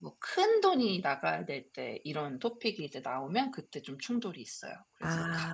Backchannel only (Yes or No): No